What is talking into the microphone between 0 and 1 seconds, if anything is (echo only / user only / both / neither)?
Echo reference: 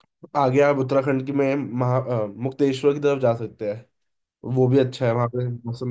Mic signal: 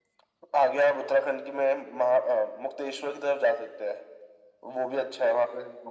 echo only